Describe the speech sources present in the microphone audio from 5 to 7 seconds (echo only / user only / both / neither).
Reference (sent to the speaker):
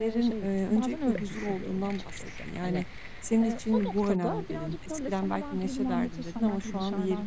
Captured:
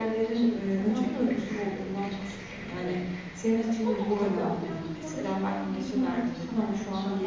echo only